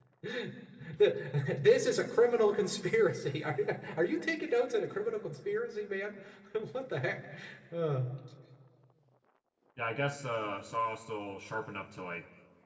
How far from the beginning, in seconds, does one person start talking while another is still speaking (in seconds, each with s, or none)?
none